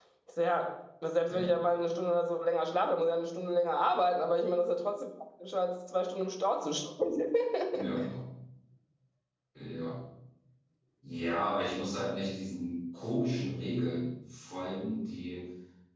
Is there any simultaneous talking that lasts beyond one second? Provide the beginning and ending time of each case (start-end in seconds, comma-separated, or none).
none